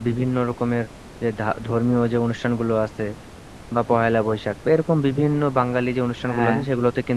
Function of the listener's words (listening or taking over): listening